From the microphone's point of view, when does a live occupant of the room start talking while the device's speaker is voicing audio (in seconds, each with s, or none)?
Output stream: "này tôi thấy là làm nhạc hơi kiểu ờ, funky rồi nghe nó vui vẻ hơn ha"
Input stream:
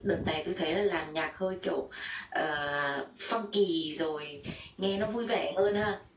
none